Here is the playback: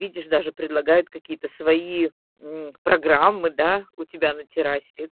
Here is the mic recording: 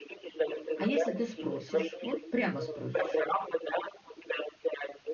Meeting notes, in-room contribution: present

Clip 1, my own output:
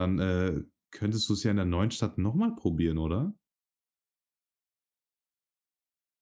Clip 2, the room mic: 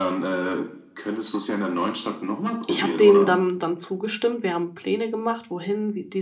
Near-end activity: present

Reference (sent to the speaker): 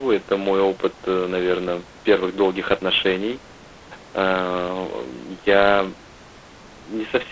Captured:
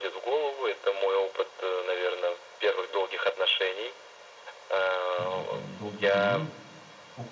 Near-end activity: present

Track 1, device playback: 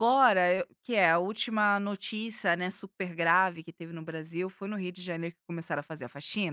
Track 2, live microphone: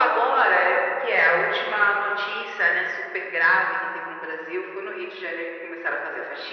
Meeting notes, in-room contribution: none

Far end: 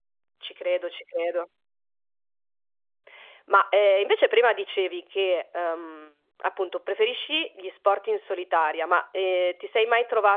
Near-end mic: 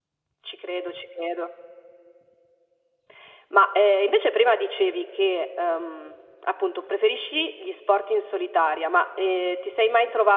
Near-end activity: none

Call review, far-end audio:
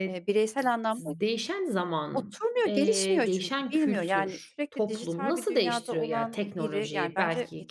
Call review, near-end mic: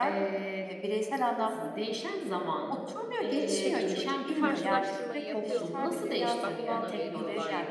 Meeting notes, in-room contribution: present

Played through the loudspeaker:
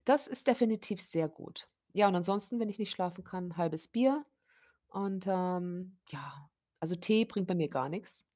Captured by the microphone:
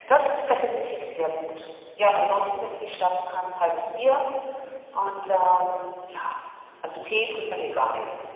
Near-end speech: none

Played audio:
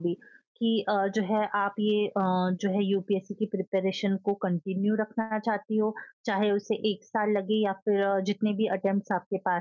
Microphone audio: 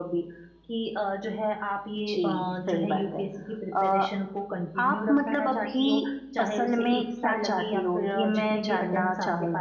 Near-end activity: present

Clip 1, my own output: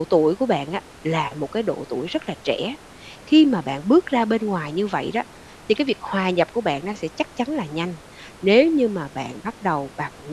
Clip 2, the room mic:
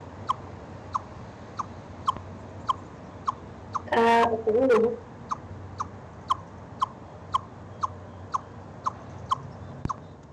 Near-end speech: present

